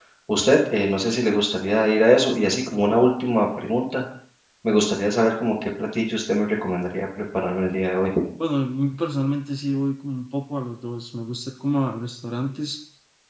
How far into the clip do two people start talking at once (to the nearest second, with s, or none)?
none